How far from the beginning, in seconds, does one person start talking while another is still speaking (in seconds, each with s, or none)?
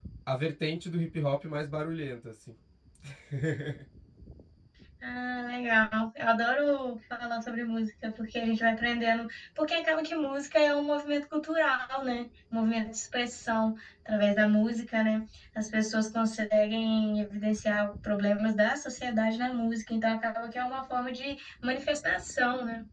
none